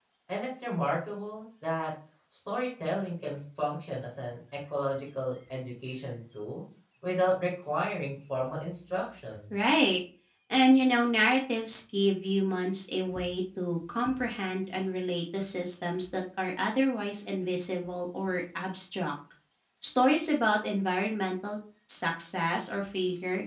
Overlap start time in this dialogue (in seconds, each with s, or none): none